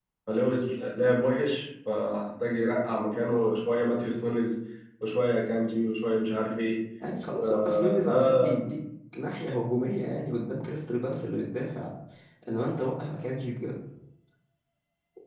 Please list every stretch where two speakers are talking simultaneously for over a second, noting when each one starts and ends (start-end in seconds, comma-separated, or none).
7.4-8.7